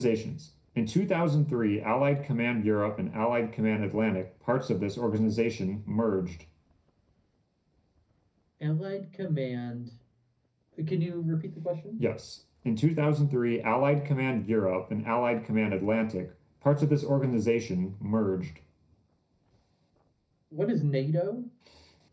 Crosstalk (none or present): none